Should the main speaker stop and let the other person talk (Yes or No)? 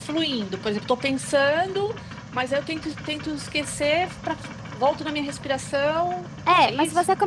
Yes